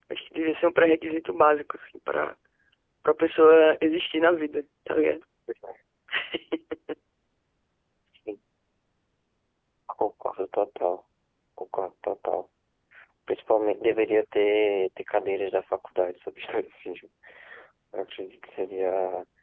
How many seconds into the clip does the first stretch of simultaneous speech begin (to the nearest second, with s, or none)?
none